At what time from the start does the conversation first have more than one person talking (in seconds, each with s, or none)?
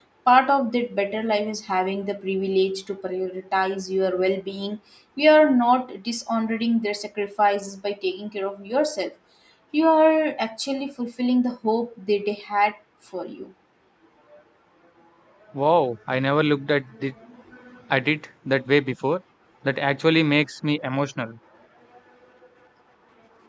none